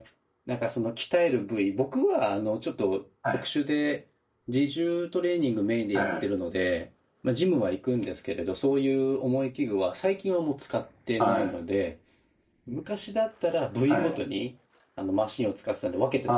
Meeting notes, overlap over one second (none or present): none